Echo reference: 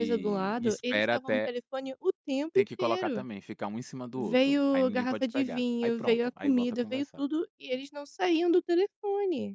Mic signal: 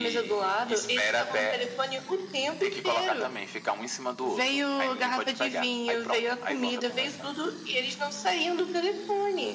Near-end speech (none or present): none